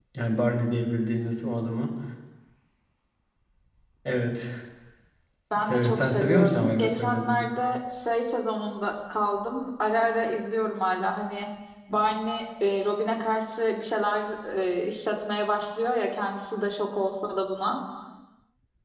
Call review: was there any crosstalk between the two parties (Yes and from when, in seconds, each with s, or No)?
Yes, from 5.6 s